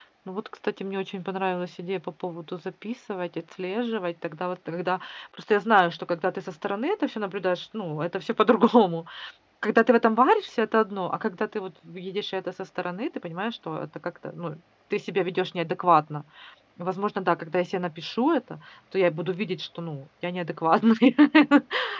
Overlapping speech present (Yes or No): No